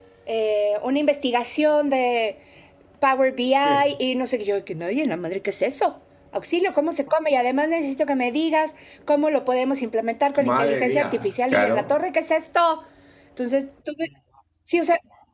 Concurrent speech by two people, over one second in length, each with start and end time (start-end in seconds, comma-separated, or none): 10.4-12.0